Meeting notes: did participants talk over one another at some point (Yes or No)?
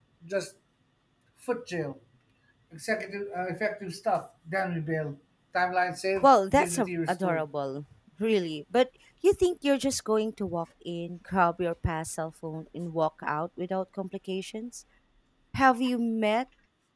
Yes